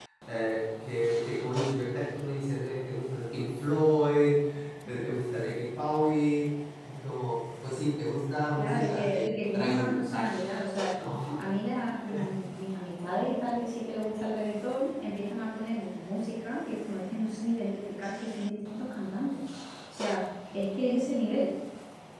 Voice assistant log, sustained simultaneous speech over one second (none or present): present